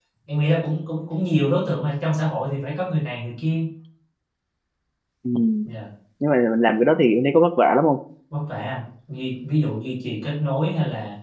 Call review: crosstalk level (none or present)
none